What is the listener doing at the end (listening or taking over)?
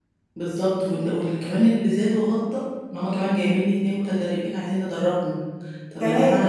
listening